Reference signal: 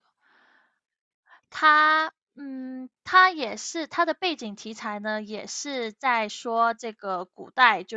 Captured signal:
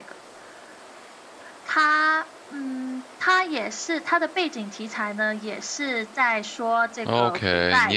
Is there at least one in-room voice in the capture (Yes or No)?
Yes